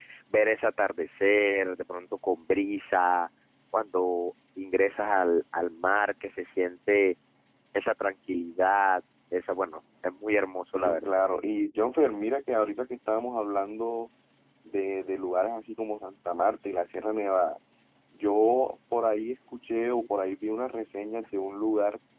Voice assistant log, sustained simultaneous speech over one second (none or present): none